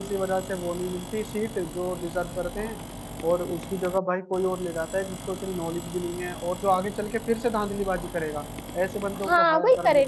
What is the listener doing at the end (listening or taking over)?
taking over